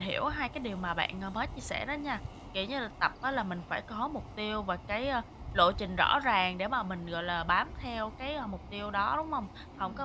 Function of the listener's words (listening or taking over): listening